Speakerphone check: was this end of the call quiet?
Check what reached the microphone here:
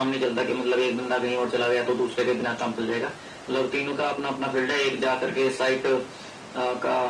Yes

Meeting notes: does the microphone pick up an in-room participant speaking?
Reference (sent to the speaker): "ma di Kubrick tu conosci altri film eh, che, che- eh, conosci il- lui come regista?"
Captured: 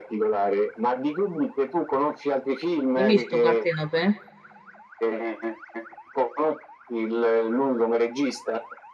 Yes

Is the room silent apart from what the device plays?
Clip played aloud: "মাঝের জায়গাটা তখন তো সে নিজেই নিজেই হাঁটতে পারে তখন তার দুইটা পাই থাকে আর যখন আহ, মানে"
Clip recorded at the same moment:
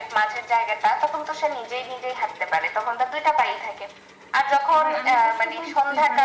No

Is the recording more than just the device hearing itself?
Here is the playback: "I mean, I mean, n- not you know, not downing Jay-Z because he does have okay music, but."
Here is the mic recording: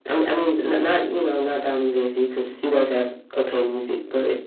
No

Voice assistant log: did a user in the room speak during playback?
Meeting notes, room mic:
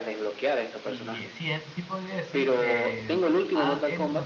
Yes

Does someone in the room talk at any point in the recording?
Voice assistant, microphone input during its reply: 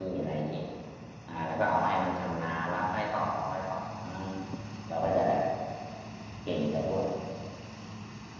Yes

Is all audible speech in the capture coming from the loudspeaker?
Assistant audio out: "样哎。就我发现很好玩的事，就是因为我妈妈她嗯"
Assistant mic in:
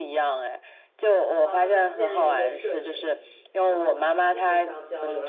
No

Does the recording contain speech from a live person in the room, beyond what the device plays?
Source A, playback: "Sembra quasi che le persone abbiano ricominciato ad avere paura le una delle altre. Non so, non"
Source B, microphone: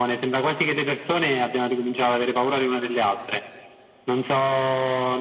No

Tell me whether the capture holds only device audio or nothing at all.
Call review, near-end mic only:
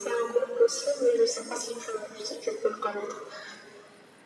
Yes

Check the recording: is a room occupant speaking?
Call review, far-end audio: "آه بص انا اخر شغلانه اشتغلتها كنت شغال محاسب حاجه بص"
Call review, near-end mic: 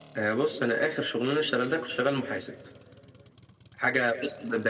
No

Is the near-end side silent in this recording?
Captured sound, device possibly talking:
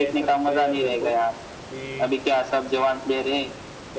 No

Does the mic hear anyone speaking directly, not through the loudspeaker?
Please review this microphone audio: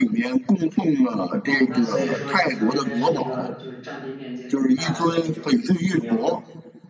Yes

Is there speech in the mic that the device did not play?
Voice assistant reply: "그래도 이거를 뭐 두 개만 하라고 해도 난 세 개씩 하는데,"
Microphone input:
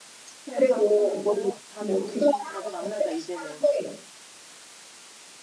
Yes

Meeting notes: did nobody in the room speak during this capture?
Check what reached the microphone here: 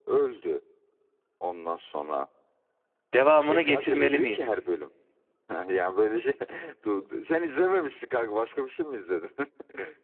No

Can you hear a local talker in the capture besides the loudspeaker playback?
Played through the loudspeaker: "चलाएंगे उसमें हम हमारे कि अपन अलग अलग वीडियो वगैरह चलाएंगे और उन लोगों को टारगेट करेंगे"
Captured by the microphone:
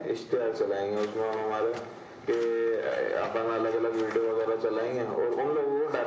No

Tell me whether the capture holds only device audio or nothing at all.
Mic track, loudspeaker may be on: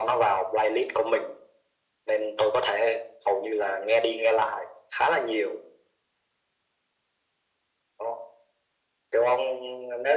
Yes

